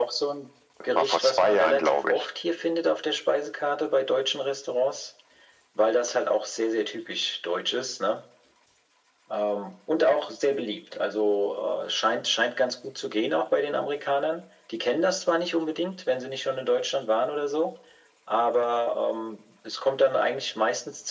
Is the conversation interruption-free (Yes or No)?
No